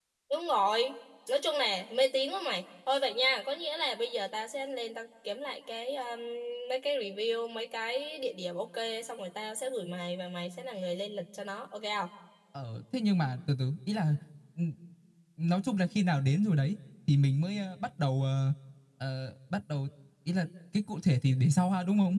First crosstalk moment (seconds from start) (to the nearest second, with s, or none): none